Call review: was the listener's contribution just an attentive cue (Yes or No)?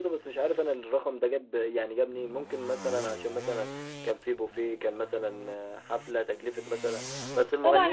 No